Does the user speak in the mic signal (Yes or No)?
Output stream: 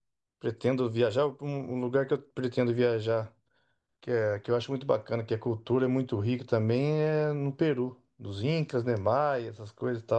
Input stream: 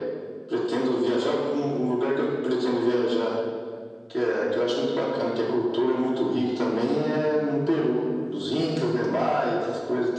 No